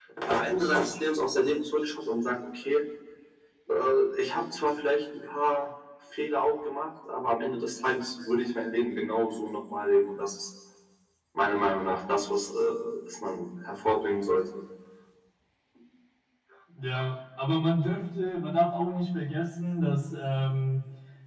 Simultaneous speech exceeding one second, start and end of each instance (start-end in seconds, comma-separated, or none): none